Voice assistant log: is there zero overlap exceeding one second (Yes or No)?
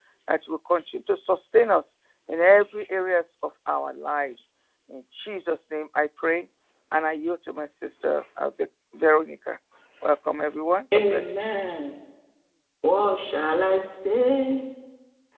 Yes